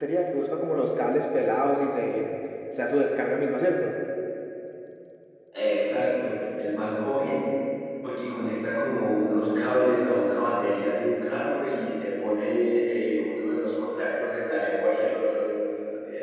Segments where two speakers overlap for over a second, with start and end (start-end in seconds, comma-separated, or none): none